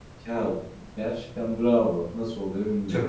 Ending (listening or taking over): taking over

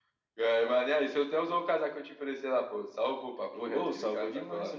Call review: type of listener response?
taking over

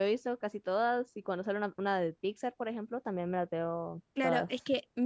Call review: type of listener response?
taking over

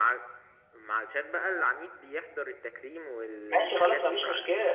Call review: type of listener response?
taking over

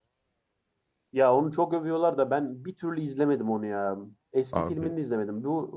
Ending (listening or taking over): listening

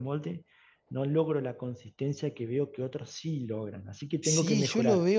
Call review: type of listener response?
taking over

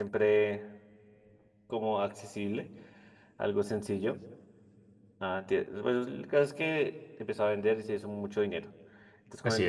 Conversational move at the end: listening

